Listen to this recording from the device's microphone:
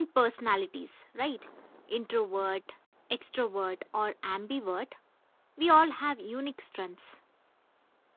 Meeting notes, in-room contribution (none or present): present